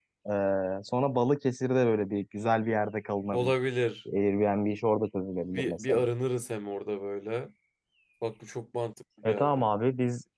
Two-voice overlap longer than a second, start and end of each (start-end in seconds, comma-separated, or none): none